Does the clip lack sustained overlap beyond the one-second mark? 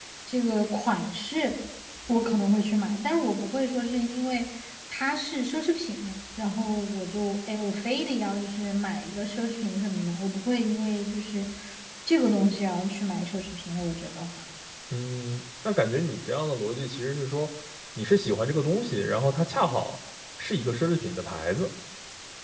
Yes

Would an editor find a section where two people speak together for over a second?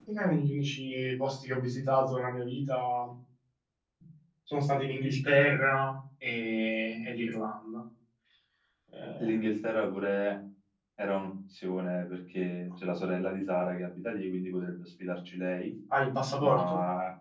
No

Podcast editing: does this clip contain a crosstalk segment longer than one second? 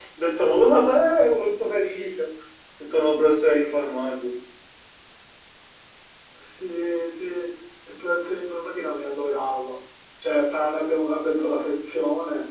No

